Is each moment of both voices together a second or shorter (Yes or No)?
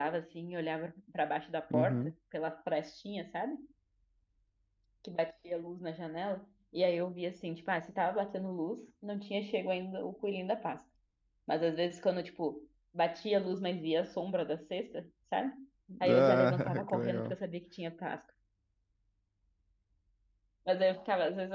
No